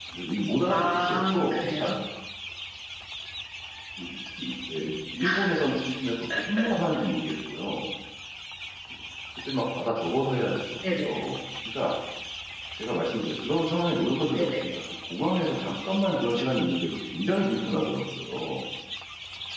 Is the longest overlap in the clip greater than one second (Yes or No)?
Yes